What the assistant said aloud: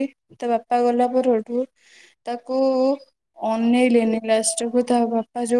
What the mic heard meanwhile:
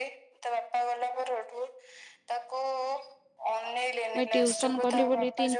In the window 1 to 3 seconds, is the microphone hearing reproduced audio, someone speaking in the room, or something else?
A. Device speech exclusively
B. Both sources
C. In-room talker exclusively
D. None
A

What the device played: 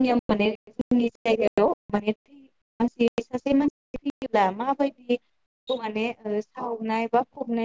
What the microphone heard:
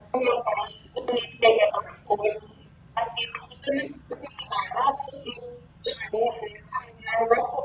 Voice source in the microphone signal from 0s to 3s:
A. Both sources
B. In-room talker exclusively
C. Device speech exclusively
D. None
C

